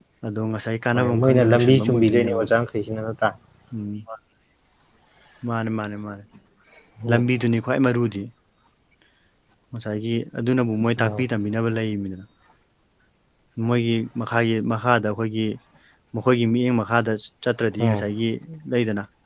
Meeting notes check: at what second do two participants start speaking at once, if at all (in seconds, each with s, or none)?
0.9 s